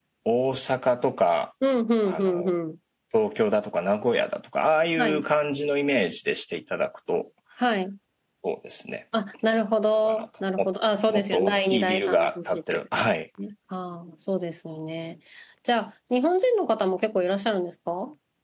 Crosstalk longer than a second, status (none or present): present